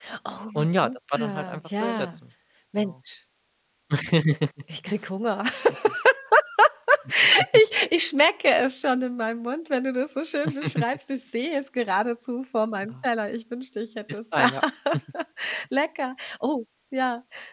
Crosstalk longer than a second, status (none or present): present